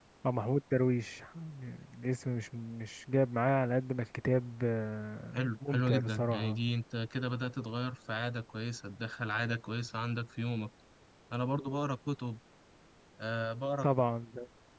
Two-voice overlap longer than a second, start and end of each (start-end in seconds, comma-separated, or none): 5.3-6.6